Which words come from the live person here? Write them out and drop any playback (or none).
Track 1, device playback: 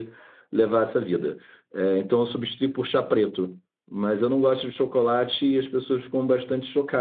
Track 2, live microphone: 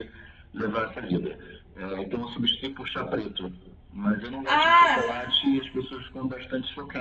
Ah,